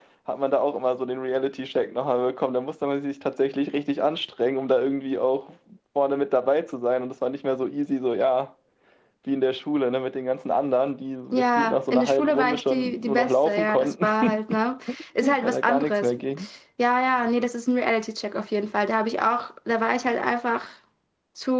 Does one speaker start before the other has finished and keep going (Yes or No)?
Yes